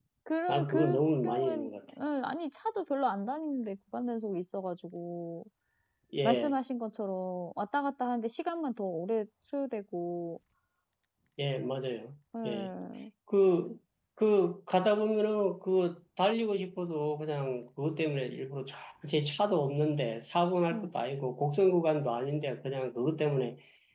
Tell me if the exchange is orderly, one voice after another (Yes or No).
No